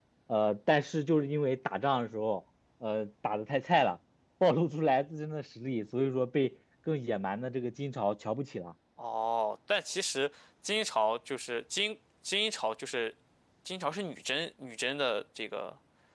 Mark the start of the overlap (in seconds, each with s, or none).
none